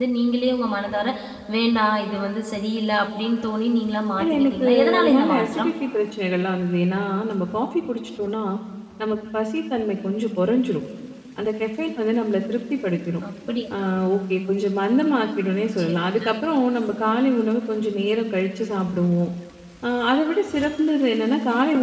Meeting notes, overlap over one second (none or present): present